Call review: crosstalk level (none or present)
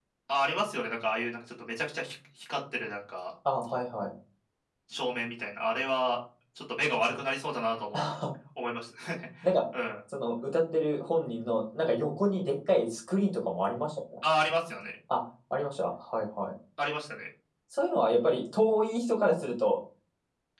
none